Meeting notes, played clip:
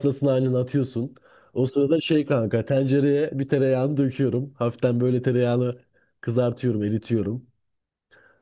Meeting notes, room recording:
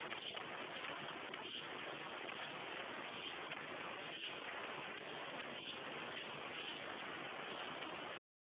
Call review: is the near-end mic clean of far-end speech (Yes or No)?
Yes